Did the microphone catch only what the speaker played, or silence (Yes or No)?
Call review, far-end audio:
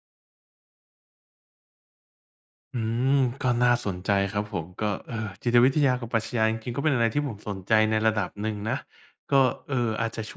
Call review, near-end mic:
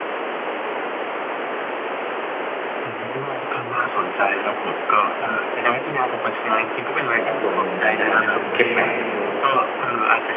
No